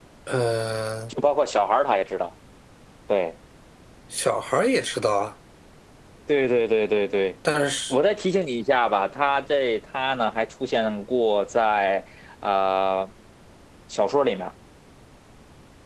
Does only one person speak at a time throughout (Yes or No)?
Yes